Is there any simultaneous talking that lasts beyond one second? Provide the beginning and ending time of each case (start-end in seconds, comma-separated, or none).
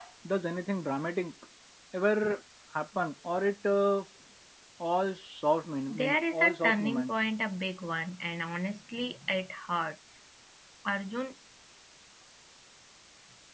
5.9-7.1